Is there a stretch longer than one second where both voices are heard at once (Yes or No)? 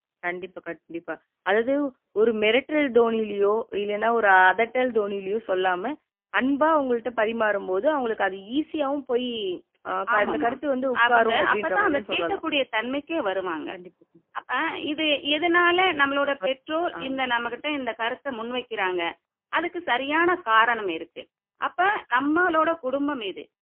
Yes